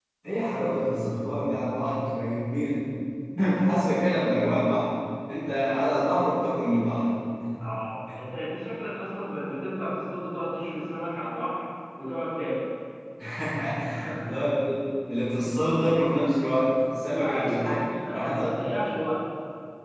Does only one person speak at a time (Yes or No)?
No